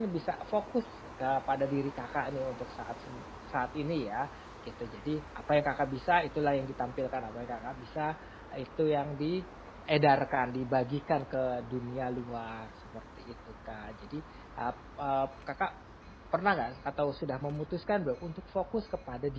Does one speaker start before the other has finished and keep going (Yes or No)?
No